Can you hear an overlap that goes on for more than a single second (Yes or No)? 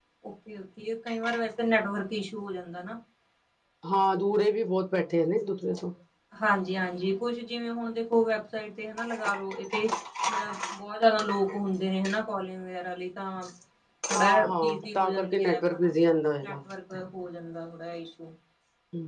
Yes